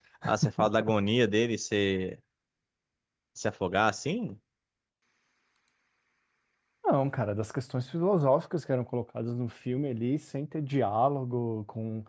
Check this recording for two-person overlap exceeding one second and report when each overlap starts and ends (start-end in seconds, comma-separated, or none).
none